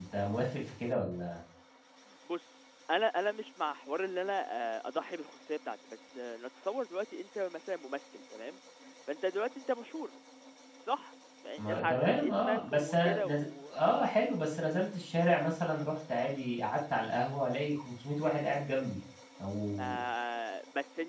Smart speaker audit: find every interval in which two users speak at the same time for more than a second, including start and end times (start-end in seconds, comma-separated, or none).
11.6-13.7